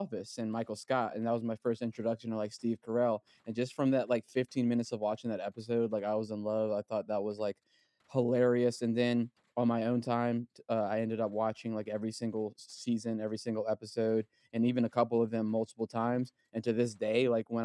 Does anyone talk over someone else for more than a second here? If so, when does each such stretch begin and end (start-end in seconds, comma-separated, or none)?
none